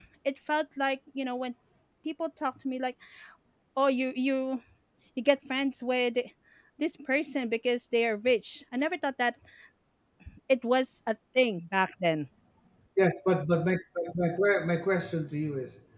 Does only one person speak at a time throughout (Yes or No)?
Yes